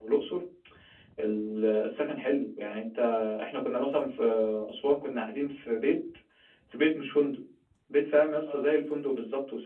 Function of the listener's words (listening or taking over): listening